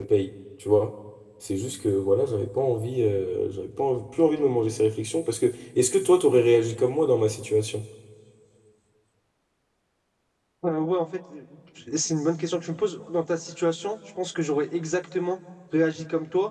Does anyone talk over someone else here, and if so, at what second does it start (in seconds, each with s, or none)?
none